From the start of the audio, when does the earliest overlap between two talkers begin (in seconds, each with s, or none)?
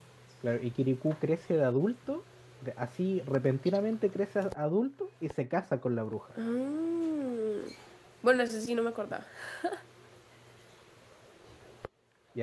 none